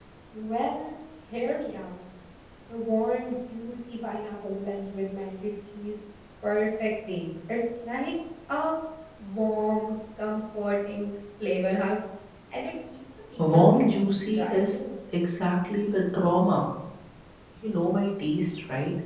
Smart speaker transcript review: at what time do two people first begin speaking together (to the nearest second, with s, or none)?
13 s